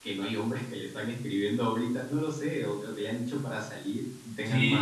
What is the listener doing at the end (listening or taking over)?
taking over